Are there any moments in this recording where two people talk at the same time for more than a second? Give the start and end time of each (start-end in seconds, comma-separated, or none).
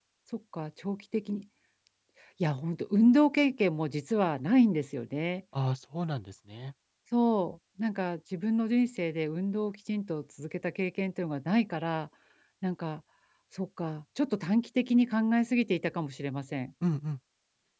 none